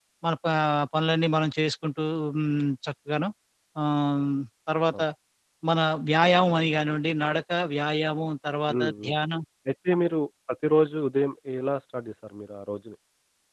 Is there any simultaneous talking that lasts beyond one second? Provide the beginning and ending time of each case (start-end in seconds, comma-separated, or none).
none